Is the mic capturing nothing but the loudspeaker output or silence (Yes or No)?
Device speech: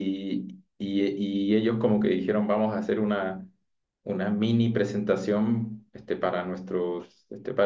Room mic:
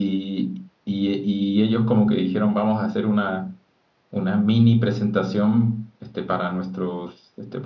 Yes